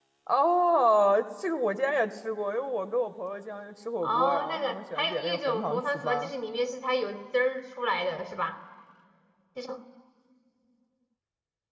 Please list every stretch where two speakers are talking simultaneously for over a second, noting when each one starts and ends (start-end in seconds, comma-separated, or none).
4.0-6.3